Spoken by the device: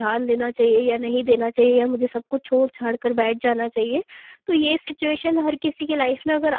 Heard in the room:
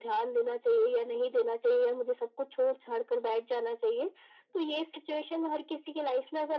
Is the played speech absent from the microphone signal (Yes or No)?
No